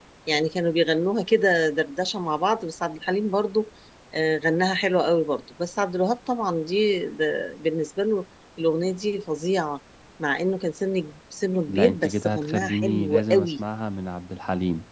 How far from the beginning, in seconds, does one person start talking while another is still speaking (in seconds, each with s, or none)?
11.7 s